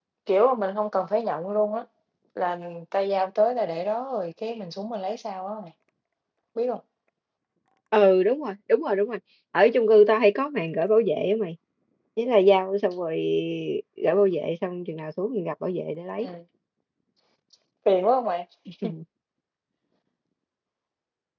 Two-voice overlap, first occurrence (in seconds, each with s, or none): none